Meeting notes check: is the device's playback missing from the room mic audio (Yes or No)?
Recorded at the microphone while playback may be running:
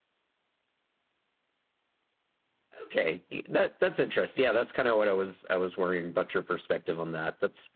Yes